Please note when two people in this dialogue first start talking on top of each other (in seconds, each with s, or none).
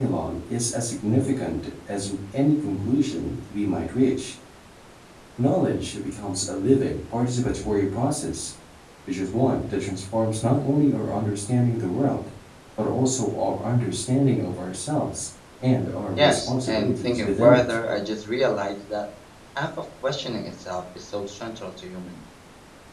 16.2 s